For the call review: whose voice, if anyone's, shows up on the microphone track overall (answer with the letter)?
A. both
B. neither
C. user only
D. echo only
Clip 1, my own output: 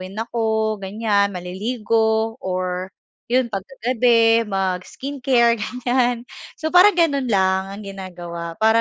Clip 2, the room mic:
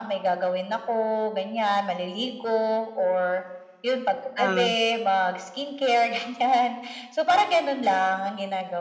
A